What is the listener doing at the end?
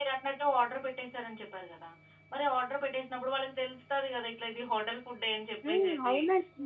taking over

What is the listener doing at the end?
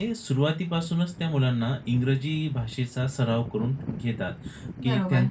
listening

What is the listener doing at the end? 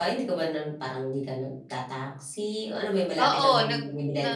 taking over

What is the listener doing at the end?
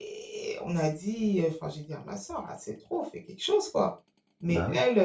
listening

